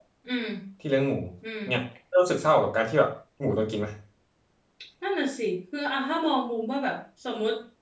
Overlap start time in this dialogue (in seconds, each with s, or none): none